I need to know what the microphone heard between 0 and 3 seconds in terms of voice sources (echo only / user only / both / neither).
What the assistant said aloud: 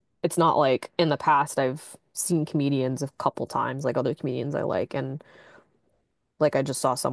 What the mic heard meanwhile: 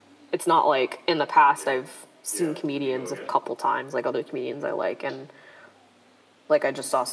both